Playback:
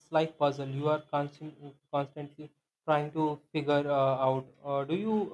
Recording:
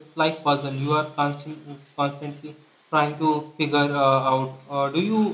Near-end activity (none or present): none